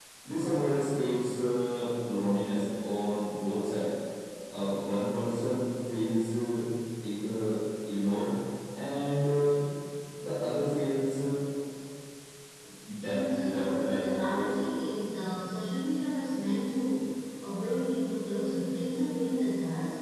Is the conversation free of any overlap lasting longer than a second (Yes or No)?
No